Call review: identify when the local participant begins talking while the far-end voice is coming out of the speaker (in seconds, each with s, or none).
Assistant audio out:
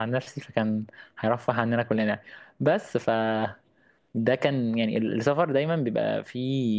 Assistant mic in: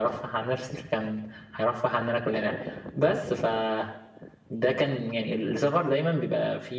none